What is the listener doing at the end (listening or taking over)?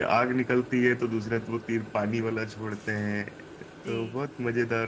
listening